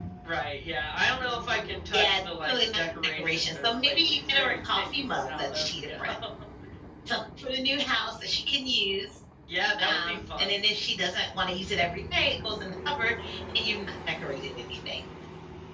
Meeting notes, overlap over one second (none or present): present